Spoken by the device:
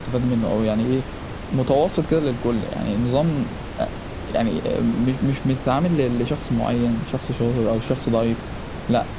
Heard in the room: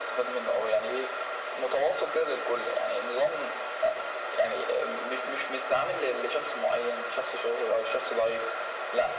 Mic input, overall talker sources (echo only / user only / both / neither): echo only